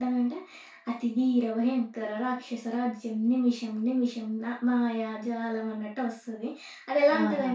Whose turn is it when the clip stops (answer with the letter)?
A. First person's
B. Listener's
A